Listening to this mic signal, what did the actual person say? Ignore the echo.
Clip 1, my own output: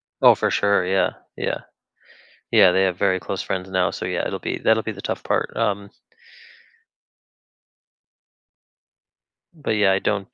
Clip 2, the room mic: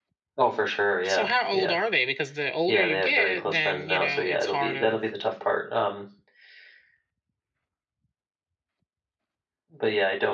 so how old are they? Because the older you get, then, you know, it's harder

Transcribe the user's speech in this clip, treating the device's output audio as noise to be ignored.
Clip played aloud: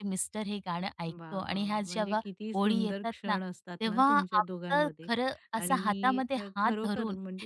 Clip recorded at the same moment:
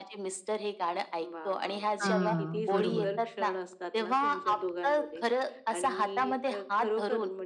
हां, बरोबर.

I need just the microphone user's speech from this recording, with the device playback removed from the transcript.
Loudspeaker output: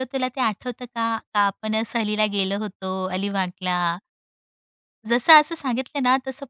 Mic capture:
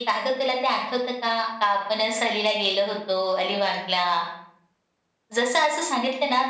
none

